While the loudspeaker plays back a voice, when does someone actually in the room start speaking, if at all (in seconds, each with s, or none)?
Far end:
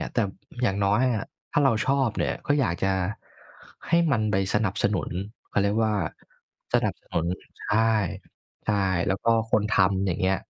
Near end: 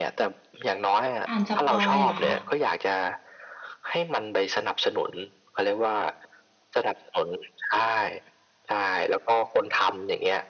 1.3 s